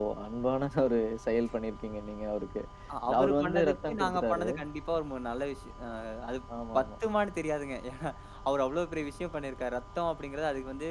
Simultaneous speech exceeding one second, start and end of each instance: 3.2-4.5

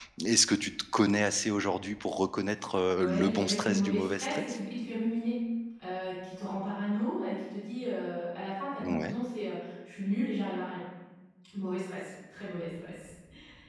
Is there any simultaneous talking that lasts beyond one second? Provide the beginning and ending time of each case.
3.0-4.6

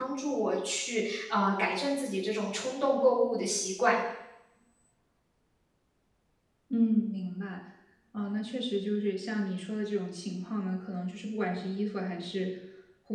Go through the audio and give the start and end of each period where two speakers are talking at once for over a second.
none

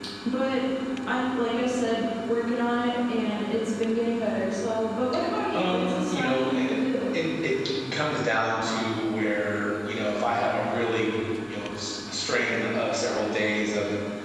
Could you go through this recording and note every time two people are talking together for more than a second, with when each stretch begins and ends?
5.5-6.8

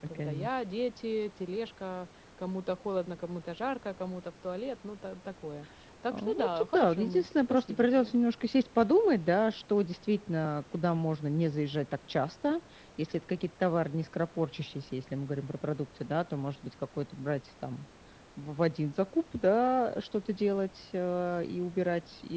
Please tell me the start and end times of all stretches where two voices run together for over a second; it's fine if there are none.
6.1-8.1

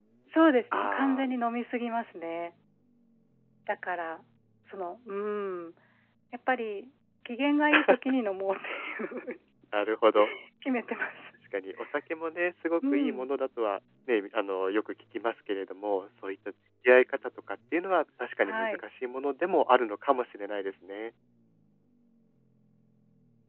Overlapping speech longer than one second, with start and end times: none

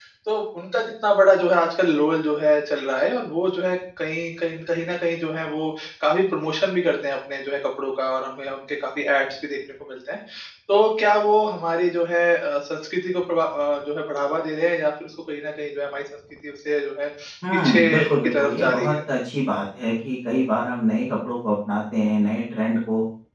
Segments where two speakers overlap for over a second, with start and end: 17.5-19.0

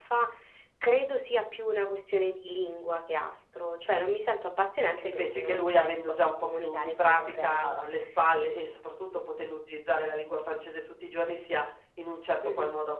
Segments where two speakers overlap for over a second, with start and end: 5.0-7.8

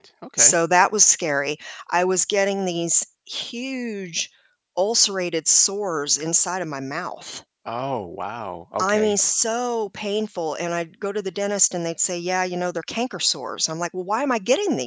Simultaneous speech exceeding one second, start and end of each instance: none

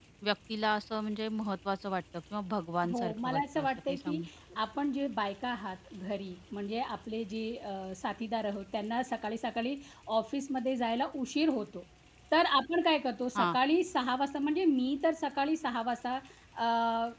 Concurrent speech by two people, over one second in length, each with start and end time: 2.9-4.2

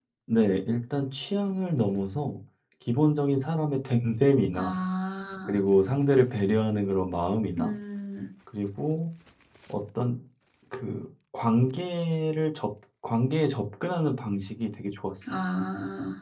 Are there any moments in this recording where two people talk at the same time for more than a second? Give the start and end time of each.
none

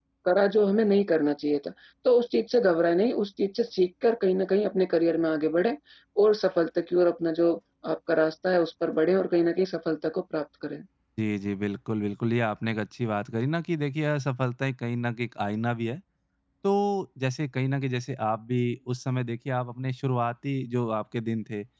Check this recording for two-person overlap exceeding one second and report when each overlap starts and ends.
none

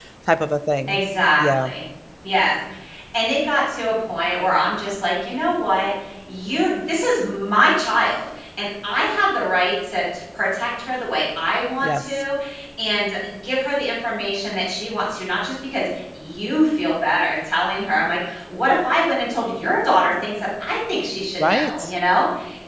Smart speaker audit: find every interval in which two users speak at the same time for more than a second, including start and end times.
none

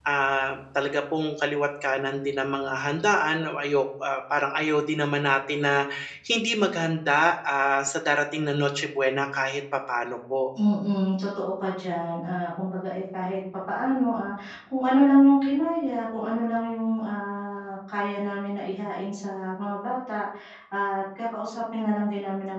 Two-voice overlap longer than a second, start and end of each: none

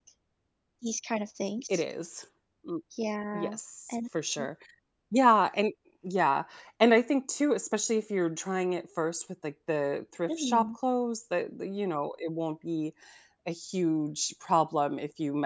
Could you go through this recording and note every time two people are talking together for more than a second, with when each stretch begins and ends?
none

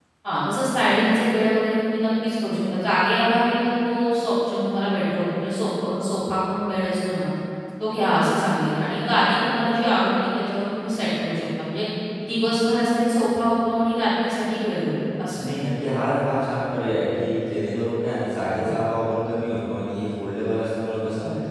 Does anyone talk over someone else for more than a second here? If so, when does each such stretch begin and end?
none

